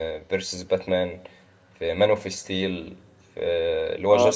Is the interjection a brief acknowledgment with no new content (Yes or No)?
Yes